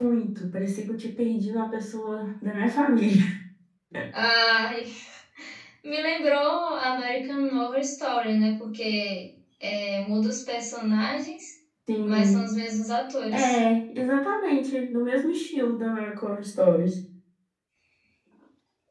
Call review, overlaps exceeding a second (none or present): none